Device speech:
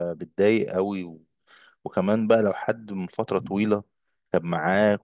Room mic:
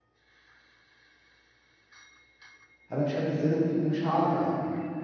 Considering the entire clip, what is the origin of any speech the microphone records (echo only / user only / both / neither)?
user only